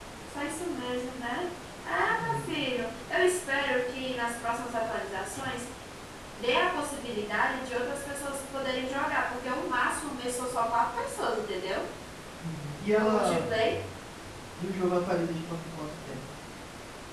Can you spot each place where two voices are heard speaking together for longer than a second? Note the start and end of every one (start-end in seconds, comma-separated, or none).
none